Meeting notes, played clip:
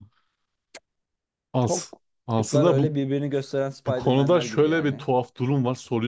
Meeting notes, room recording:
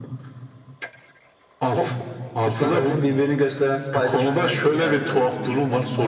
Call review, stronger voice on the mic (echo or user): echo